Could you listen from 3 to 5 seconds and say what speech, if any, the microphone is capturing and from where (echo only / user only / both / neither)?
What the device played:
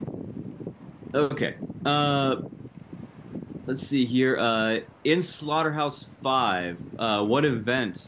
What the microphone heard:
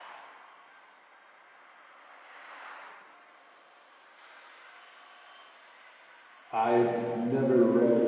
neither